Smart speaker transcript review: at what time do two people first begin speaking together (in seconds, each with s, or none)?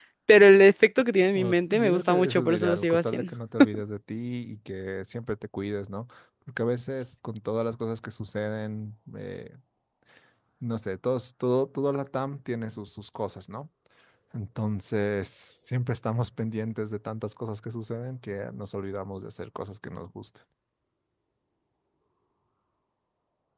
1.3 s